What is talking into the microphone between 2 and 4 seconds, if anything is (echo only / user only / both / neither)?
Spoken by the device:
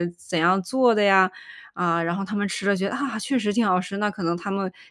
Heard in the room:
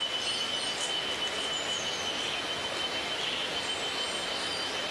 neither